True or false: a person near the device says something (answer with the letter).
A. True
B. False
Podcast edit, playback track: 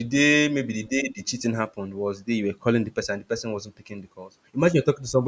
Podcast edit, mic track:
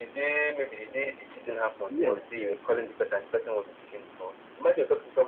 A